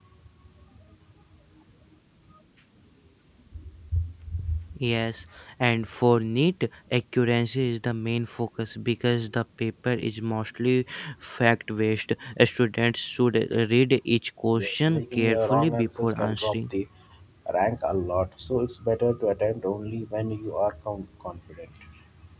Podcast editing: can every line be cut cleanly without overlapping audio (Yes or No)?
No